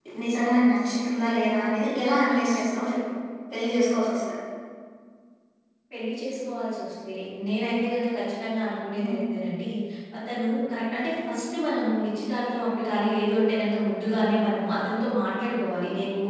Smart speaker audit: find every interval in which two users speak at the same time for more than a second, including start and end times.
none

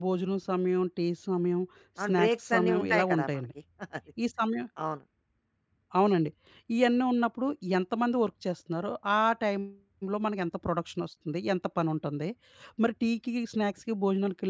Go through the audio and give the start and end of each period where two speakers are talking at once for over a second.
2.0-3.4

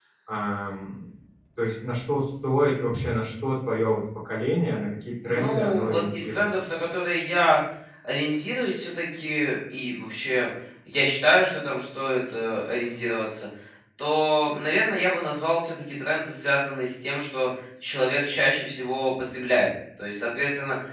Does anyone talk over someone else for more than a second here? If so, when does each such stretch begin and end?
5.3-6.5

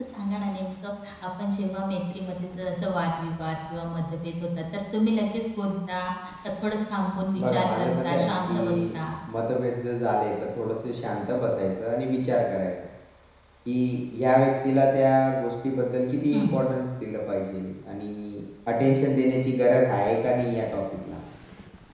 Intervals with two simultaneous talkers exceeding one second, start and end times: 7.4-9.0

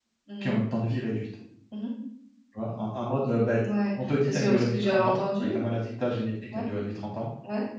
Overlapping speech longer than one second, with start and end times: 4.0-5.5

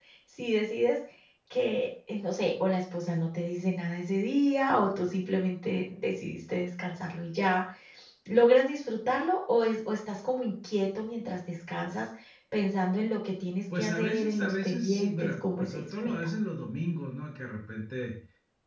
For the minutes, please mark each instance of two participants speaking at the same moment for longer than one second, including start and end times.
13.8-16.1

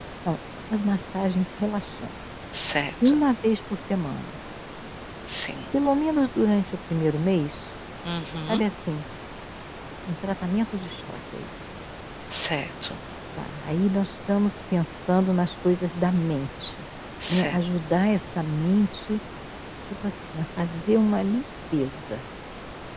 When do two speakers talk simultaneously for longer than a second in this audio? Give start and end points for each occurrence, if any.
none

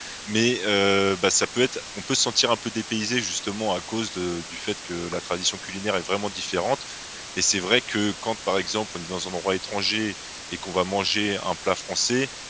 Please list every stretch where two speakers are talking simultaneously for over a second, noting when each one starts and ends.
none

